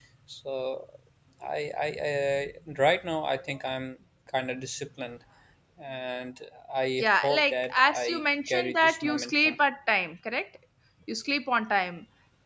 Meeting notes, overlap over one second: present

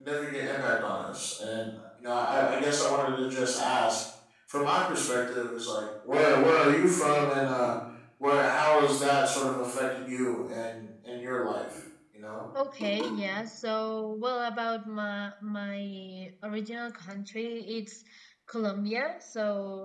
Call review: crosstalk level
none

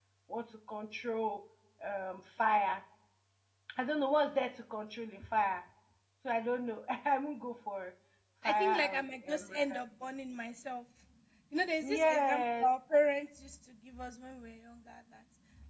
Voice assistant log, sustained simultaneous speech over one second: present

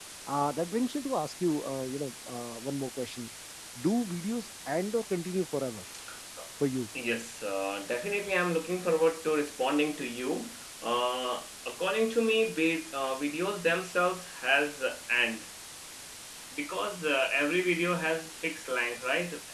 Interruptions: none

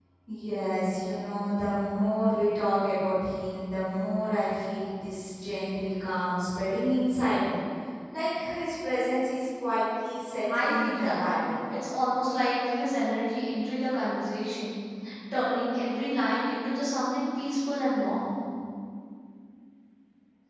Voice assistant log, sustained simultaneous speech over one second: present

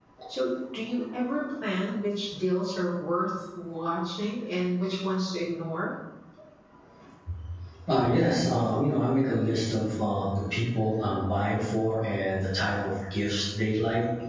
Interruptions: none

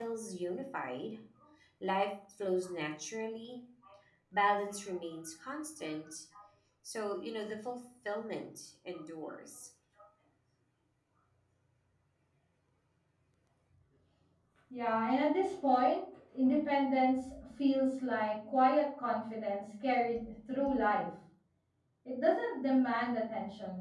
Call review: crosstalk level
none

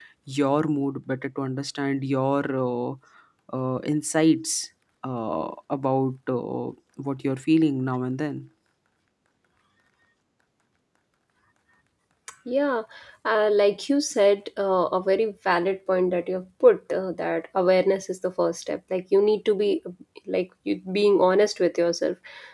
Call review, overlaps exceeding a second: none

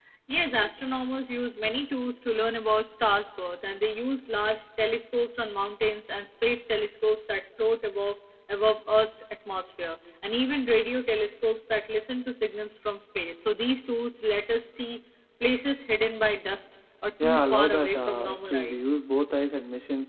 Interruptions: present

